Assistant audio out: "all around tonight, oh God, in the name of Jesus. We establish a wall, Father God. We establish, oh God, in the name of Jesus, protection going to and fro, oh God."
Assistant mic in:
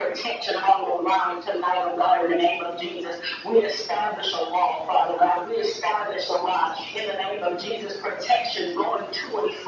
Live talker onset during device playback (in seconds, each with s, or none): none